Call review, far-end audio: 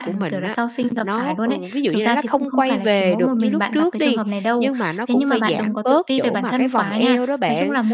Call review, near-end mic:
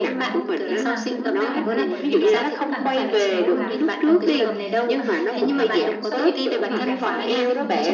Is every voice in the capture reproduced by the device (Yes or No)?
No